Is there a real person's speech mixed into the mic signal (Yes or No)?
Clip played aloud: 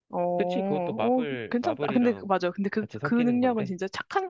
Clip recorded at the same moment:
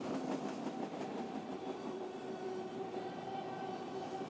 No